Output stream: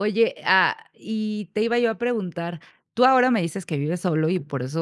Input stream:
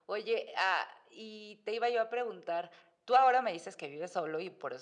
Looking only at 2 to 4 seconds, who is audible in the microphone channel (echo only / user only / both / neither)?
echo only